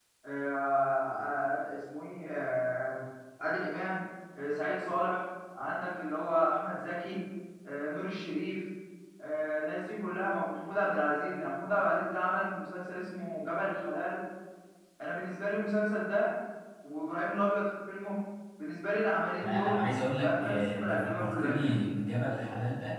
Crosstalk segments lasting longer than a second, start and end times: 19.4-21.8

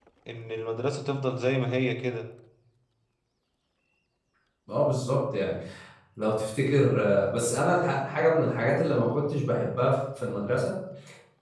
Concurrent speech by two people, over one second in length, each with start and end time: none

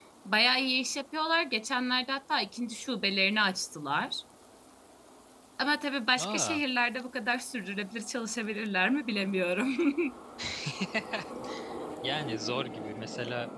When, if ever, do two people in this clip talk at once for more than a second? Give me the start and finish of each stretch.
none

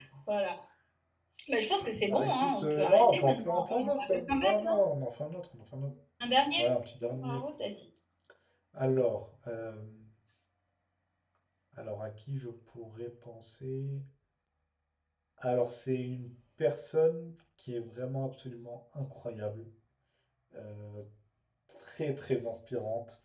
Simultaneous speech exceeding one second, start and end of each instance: 2.1-4.7

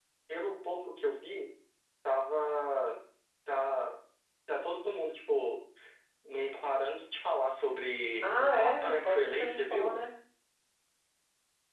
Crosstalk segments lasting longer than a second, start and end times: 8.2-9.9

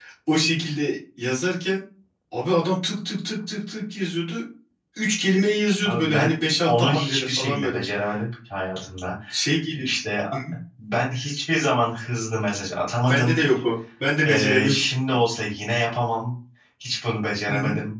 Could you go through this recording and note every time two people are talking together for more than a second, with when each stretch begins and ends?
5.8-7.8

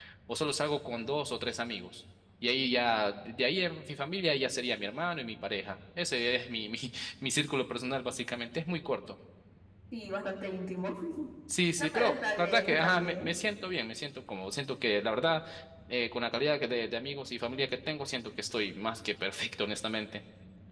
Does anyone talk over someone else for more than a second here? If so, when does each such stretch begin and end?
11.8-13.4

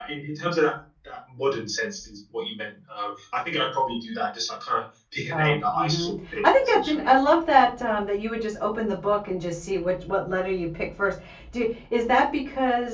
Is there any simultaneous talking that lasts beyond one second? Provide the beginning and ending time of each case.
5.3-7.1

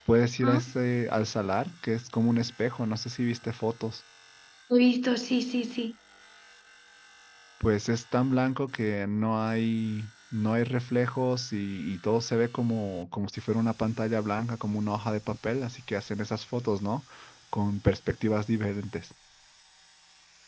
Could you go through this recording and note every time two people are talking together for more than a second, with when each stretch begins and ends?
none

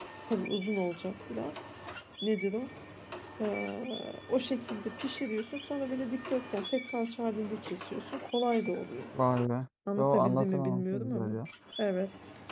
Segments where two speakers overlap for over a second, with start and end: 10.0-11.4

